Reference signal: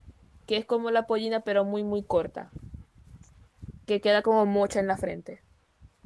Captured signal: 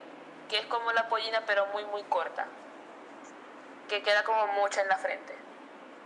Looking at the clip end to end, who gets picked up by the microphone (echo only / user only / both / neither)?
echo only